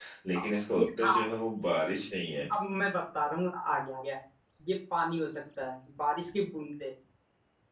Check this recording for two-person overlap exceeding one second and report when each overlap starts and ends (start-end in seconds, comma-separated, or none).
none